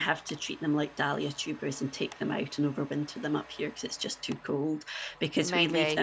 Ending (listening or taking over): listening